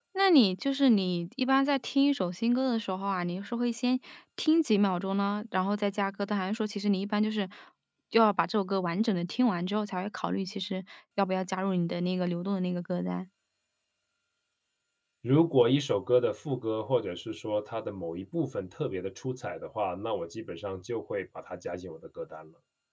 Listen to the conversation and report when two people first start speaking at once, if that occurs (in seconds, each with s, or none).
none